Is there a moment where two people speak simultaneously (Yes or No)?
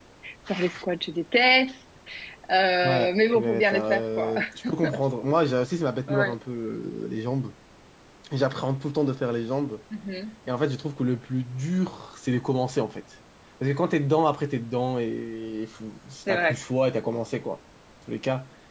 Yes